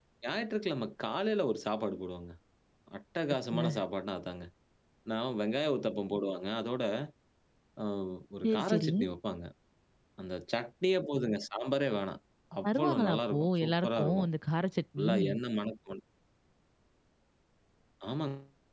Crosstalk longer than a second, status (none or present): present